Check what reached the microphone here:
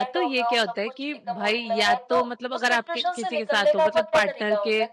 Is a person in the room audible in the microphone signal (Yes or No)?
Yes